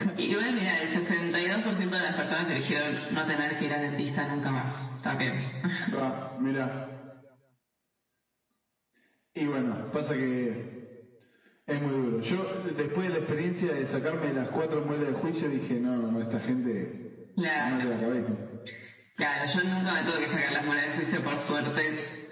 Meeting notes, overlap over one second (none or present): none